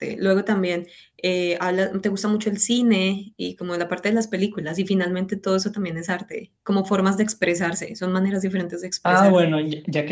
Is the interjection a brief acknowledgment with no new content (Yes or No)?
No